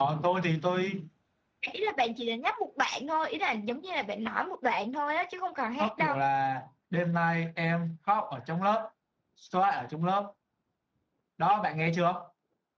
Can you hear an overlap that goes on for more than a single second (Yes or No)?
No